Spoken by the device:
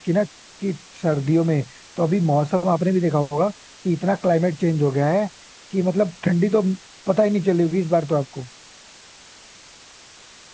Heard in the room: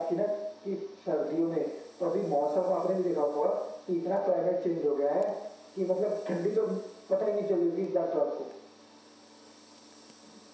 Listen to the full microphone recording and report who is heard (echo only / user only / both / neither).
echo only